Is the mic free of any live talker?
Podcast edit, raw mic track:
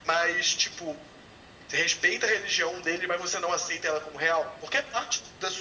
Yes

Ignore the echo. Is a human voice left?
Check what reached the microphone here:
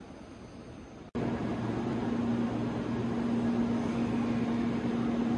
No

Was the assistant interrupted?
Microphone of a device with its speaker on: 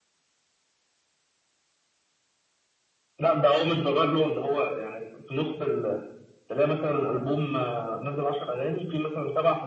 No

